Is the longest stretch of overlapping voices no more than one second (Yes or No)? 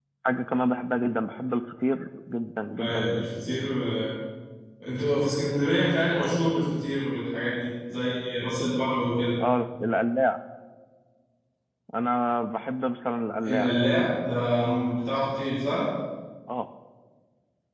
Yes